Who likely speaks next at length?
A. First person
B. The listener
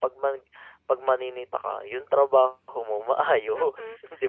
B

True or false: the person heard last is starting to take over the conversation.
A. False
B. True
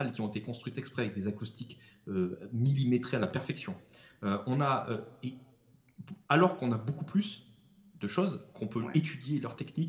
A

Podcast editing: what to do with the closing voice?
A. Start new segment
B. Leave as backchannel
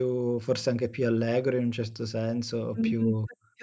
A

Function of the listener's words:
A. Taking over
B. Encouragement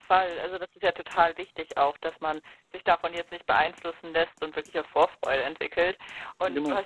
B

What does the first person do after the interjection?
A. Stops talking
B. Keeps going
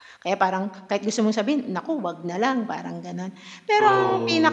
B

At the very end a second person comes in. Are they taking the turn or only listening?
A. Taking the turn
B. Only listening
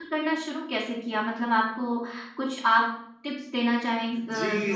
A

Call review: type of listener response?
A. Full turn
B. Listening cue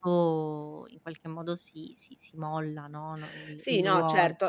A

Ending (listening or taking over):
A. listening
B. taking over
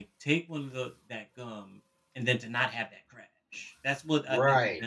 B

